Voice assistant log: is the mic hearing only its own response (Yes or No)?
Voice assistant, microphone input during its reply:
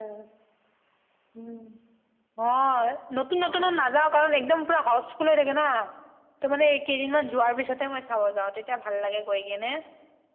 No